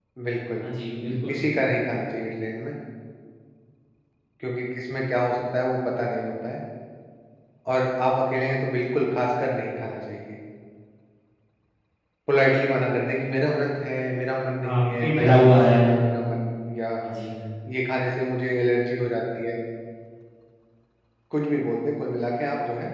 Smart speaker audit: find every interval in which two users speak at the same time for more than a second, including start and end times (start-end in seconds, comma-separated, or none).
14.6-15.9